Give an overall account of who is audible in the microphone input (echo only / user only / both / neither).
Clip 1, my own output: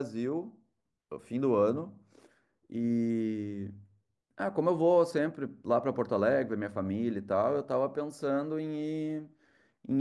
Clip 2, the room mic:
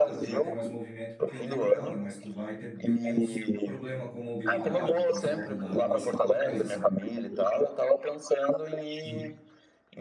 both